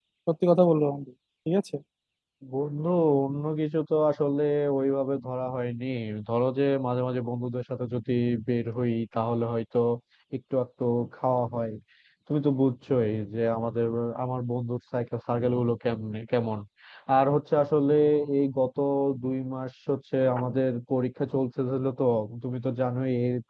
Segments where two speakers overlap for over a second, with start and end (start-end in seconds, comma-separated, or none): none